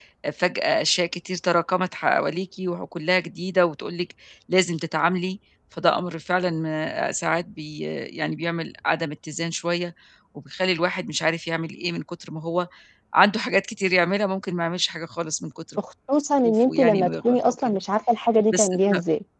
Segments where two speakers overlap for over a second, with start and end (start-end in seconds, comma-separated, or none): 16.4-17.8